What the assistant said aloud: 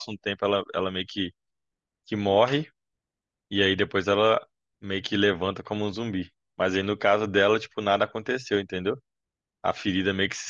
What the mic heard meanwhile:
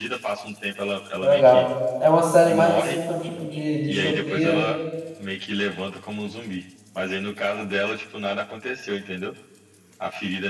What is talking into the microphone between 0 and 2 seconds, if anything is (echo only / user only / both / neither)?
both